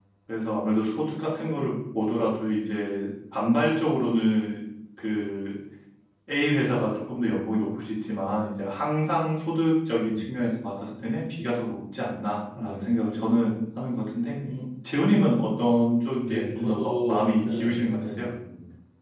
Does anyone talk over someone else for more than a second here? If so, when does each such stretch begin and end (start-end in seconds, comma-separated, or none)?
16.3-18.3